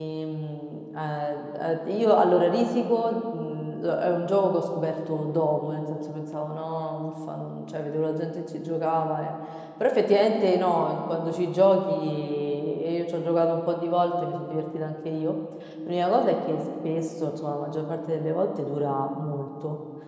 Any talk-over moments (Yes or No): No